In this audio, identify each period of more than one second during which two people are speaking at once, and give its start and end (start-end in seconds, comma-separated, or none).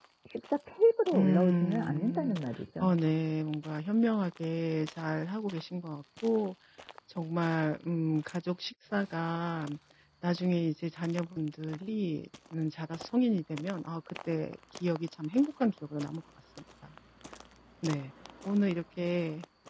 1.1-2.4